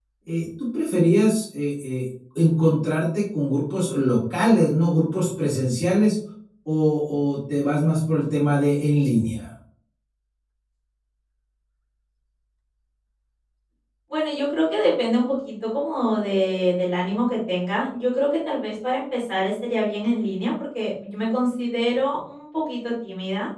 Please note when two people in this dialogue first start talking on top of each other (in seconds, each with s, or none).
none